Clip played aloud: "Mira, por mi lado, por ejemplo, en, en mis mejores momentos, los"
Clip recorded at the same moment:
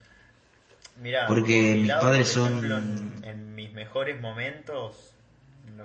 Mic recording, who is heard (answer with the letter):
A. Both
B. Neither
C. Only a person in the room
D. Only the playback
A